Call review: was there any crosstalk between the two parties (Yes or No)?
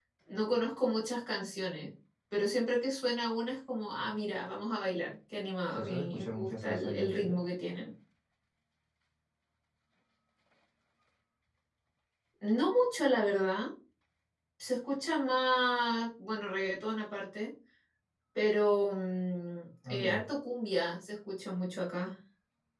Yes